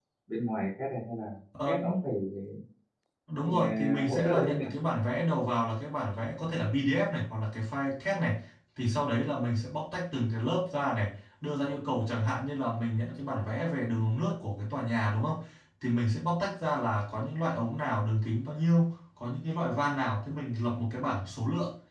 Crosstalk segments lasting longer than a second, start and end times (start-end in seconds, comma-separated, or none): 3.4-4.6